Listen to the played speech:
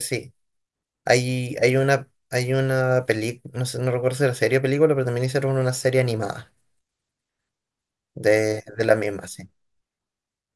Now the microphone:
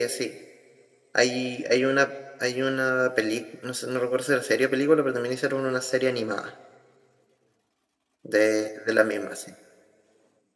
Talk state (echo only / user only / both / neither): echo only